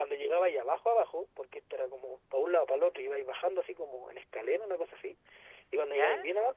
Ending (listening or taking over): listening